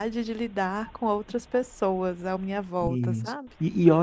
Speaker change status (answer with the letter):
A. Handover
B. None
A